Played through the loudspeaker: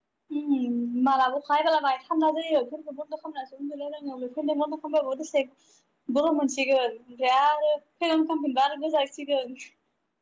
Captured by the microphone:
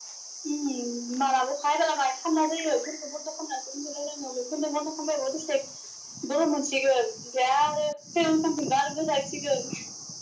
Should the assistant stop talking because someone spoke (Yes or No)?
No